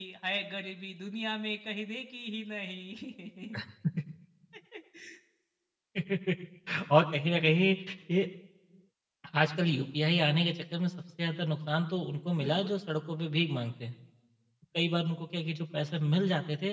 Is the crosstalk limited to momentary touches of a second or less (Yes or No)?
Yes